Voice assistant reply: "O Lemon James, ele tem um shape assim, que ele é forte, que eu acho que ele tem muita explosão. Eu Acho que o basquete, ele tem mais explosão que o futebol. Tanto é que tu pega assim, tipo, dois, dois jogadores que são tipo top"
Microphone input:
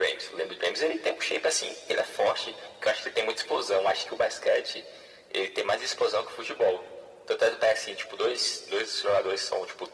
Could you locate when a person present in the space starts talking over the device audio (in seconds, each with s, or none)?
none